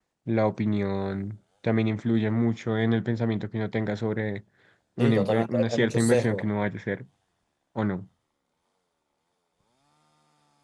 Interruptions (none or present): present